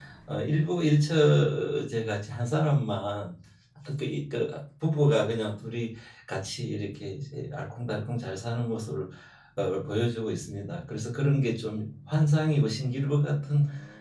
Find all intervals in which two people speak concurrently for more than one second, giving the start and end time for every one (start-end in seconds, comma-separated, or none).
none